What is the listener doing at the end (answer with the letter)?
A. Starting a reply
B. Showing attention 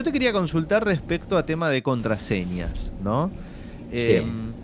B